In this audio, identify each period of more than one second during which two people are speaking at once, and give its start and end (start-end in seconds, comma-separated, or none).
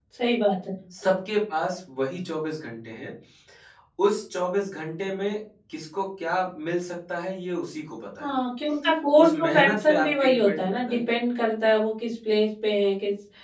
9.2-11.0